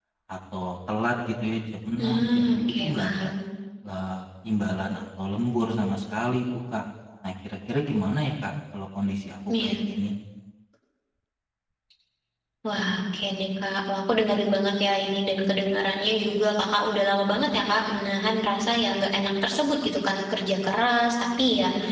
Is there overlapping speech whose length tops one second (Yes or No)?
Yes